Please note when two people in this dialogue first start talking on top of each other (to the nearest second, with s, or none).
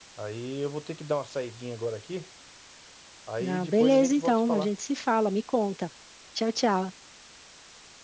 3 s